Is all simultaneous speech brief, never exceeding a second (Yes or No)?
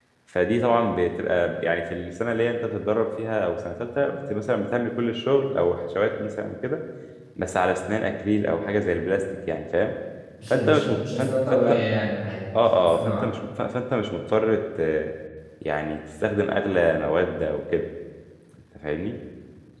No